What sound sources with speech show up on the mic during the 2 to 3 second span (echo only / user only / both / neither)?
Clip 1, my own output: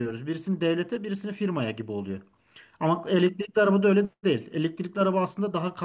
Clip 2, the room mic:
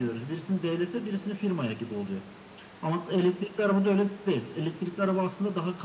echo only